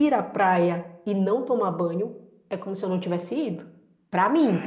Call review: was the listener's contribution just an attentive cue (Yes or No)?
Yes